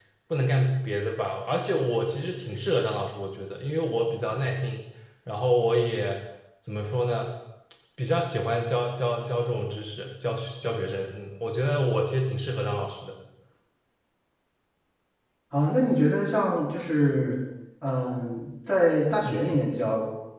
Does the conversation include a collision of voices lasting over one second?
No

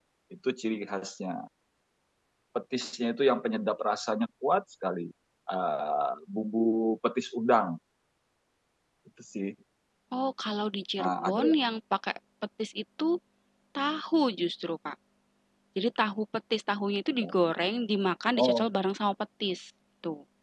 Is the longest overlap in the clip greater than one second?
No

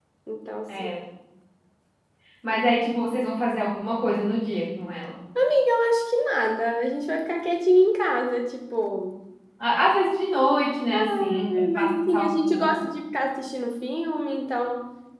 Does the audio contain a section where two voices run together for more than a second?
Yes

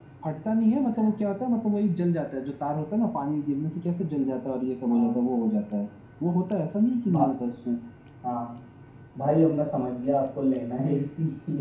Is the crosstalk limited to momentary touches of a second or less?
Yes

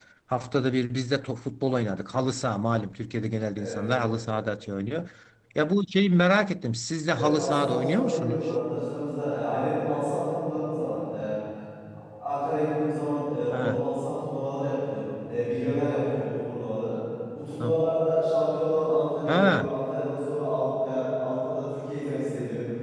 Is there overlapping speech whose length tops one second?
Yes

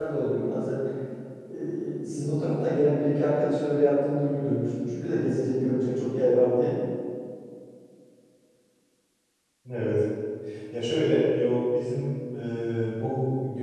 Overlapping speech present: No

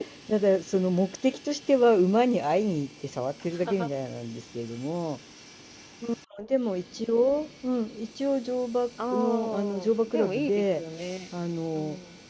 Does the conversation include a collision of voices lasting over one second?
Yes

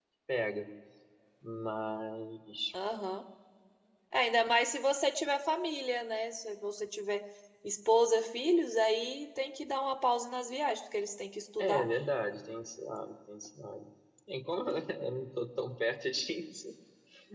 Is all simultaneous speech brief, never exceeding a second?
Yes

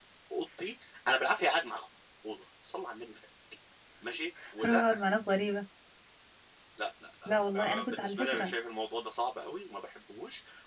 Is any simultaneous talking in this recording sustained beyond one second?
Yes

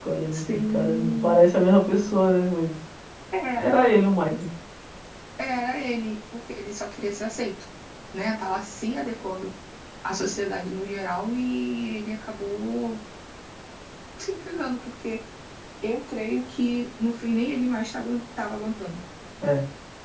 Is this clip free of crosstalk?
No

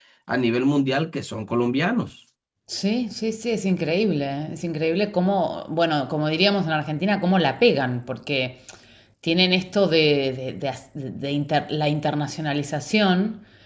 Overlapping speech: No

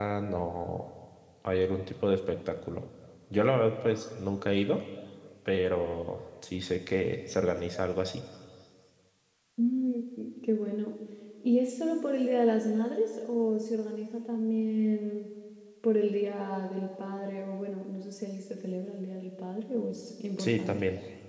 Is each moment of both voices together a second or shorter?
Yes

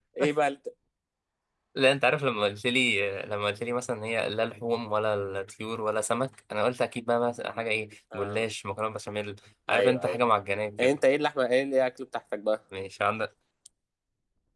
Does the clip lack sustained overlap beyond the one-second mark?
Yes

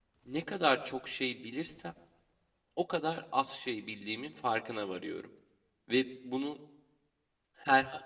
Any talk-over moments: No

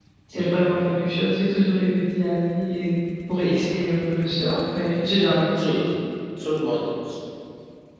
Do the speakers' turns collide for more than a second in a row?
No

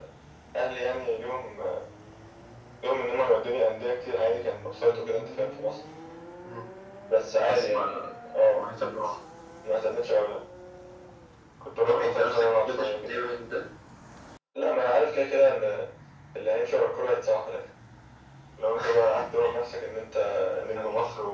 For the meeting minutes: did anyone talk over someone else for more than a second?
Yes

